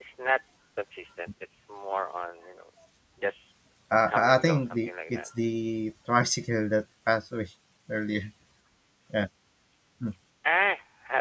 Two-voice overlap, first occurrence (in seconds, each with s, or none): 4.1 s